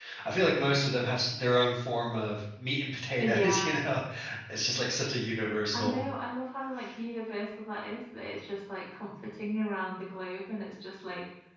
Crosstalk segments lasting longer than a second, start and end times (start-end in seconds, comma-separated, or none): none